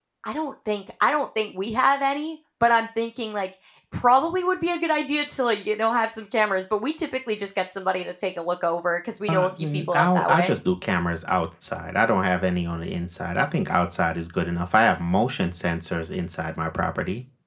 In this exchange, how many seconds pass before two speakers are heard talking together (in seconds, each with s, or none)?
9.3 s